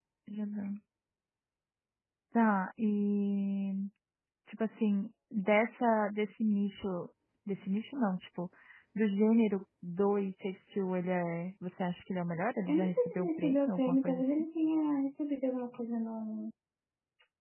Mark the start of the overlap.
12.6 s

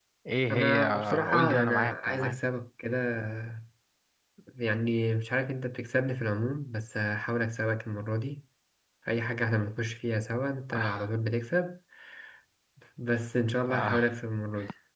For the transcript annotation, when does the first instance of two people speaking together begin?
0.5 s

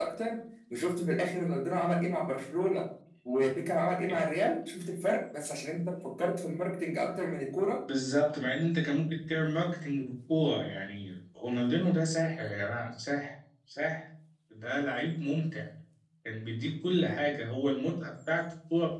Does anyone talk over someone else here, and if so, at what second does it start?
none

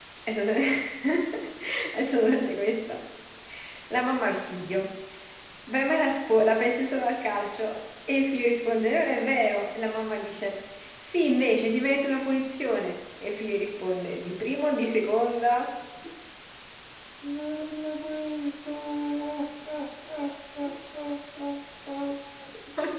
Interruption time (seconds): none

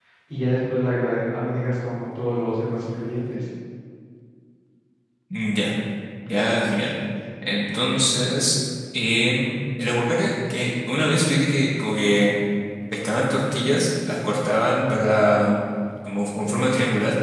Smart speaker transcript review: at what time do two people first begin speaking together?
none

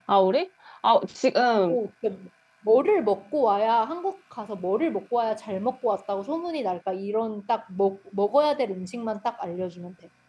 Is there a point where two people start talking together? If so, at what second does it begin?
none

